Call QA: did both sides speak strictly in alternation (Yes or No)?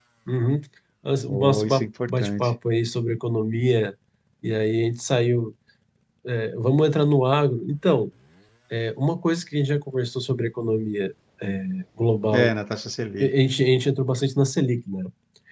No